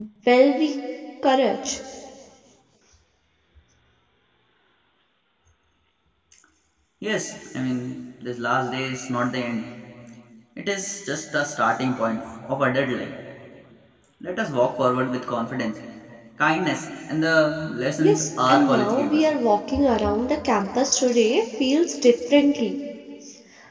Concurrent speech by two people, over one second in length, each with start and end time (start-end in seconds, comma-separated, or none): 18.0-19.3